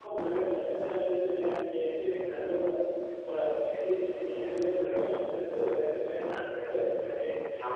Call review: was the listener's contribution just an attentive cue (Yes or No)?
No